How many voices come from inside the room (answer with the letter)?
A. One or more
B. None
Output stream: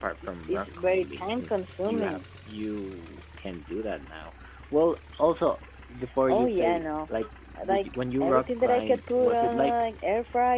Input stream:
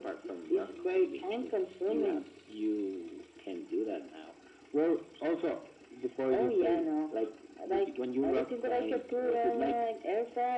B